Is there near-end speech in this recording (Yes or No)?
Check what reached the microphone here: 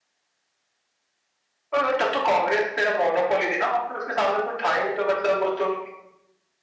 No